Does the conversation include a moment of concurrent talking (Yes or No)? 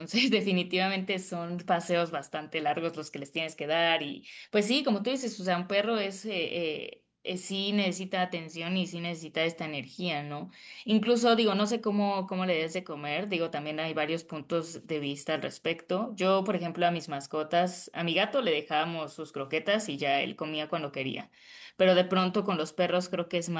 No